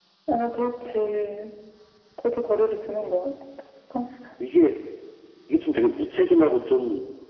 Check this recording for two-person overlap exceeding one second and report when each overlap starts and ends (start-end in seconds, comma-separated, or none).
none